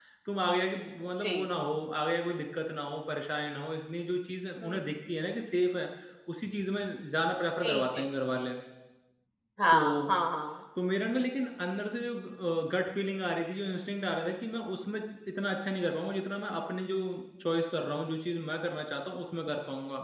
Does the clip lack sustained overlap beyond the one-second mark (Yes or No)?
Yes